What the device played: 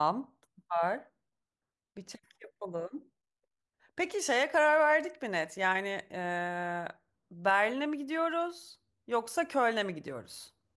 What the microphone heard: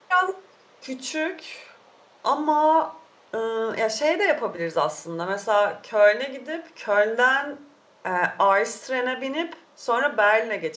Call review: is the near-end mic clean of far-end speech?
Yes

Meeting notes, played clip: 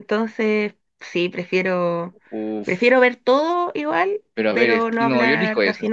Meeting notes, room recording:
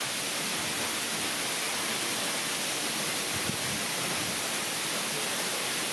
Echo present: No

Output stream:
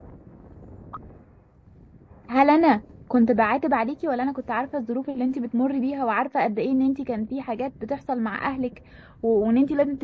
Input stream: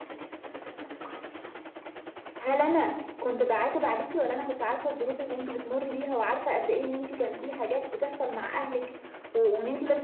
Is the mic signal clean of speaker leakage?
No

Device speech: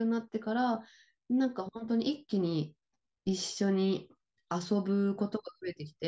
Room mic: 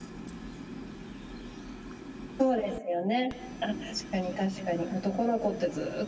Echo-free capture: Yes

